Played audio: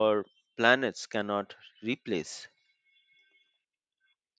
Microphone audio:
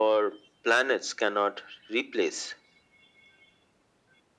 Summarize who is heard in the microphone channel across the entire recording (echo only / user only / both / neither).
echo only